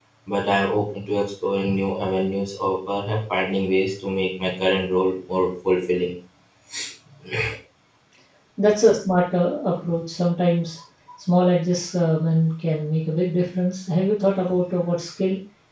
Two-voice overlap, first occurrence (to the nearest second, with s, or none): none